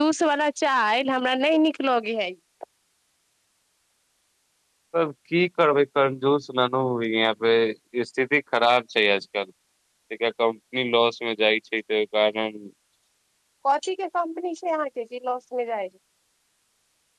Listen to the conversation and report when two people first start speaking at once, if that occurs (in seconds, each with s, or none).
none